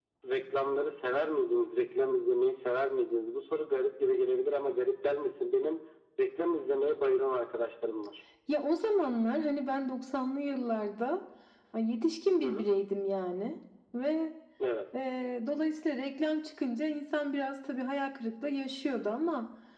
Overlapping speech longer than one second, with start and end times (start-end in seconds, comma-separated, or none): none